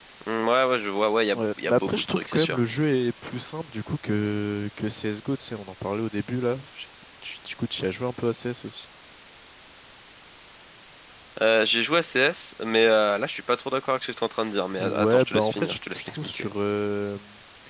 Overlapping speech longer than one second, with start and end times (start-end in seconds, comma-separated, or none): 1.3-2.6, 14.8-16.5